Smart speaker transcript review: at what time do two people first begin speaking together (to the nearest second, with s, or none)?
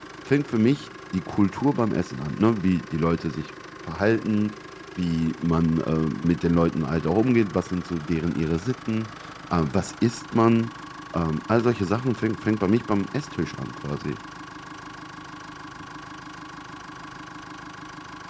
none